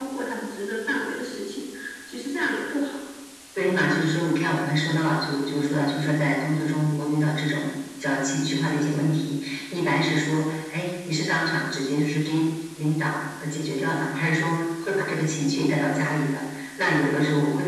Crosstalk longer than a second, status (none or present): none